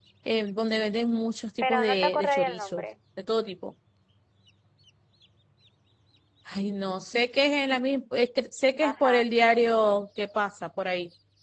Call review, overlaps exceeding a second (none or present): present